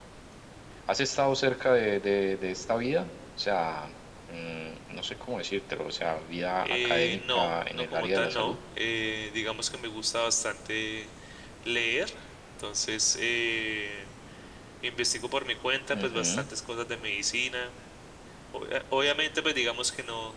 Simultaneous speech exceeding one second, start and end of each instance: 6.6-8.6

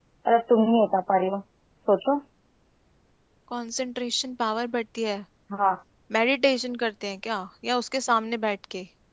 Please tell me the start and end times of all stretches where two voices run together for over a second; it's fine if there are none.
none

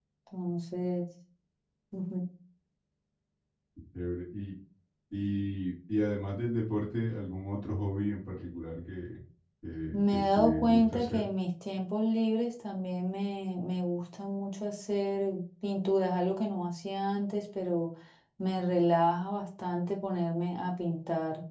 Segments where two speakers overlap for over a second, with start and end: 9.9-11.2

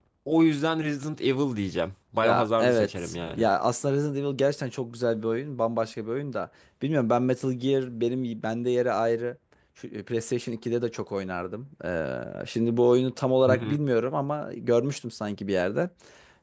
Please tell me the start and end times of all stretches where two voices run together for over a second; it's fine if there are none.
2.2-3.5

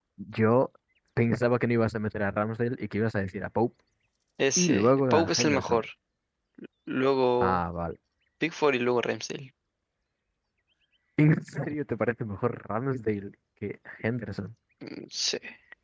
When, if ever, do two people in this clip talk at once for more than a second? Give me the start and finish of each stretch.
4.6-5.8

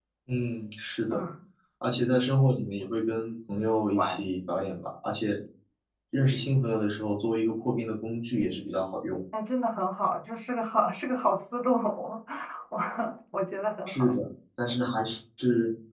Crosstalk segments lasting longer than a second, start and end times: none

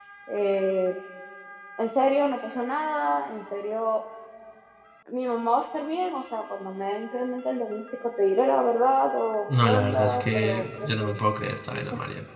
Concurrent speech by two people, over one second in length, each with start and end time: 9.6-11.0

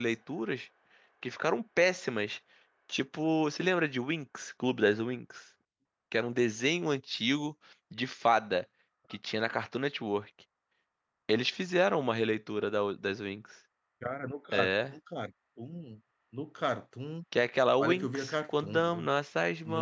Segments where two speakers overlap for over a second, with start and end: 17.8-19.1

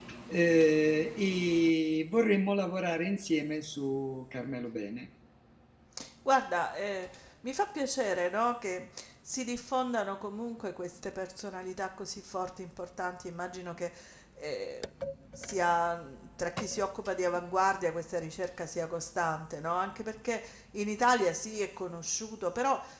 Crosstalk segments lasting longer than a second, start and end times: none

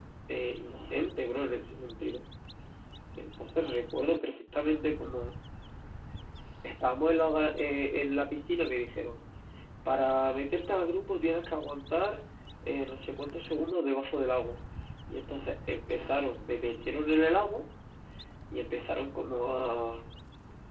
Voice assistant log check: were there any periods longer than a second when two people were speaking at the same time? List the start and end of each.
none

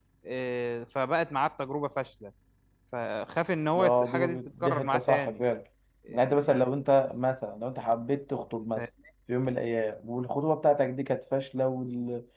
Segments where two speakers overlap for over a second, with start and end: 3.8-5.4

